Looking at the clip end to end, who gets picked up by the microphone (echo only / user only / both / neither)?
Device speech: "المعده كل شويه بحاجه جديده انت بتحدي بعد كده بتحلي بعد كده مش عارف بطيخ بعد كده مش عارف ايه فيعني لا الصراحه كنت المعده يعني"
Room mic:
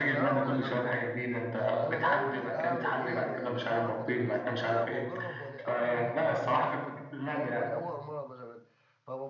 both